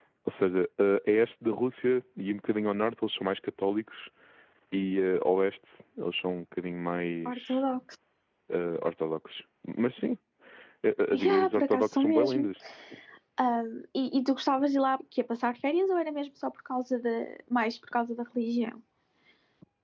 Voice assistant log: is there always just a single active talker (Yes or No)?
No